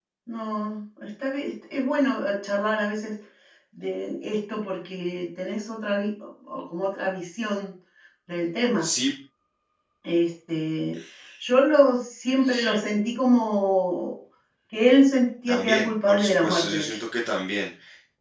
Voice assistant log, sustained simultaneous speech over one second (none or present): present